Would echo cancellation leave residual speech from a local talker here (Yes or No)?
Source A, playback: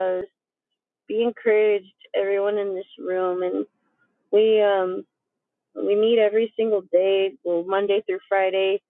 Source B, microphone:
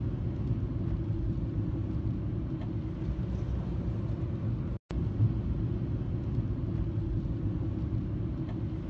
No